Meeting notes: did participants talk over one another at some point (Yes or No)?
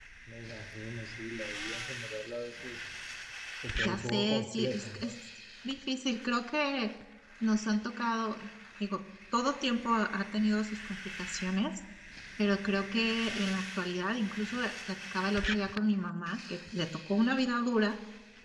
Yes